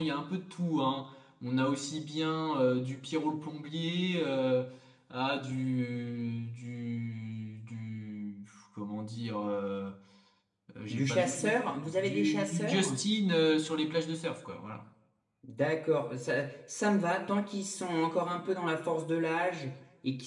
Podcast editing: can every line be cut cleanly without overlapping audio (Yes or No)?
No